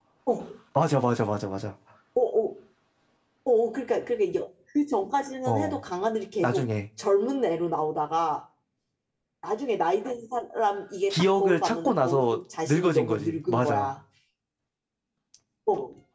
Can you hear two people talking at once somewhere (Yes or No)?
Yes